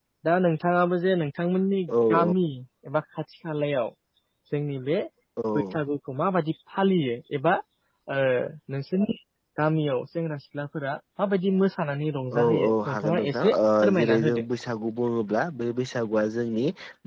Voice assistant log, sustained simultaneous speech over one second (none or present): present